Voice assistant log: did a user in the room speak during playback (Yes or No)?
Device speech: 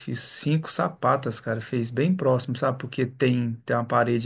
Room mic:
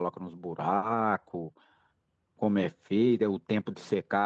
Yes